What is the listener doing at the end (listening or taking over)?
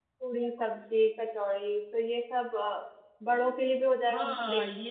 taking over